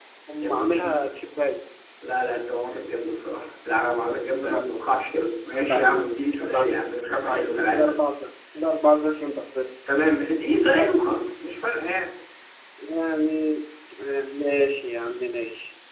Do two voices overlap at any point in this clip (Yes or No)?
Yes